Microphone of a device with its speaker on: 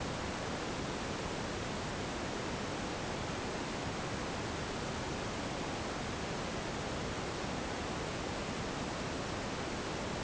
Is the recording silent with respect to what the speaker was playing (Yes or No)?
Yes